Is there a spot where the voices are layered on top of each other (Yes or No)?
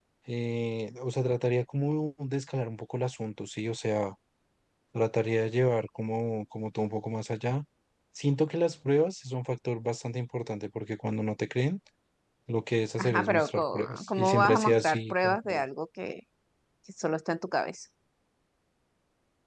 Yes